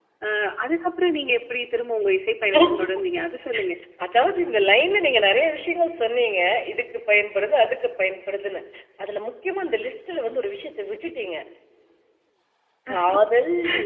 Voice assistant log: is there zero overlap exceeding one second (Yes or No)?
Yes